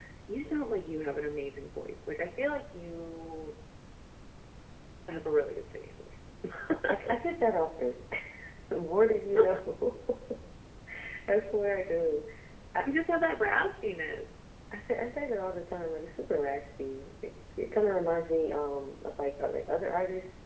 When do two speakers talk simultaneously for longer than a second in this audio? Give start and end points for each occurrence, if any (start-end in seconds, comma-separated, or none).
none